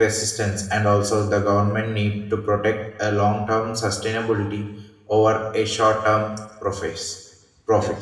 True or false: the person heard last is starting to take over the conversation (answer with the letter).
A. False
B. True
B